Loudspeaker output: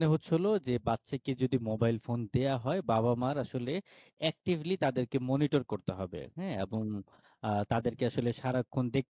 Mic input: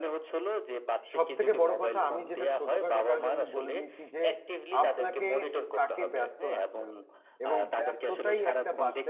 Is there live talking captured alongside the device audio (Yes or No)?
Yes